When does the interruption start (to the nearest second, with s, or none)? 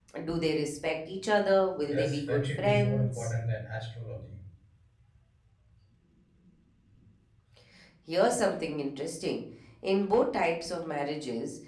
2 s